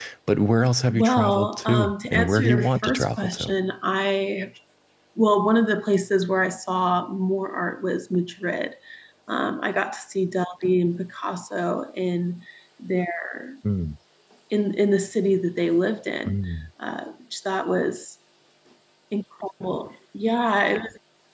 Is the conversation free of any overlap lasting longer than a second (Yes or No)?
No